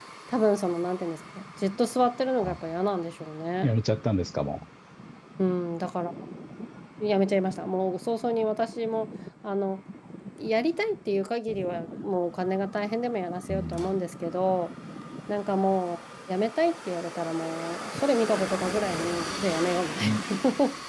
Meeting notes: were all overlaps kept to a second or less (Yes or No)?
Yes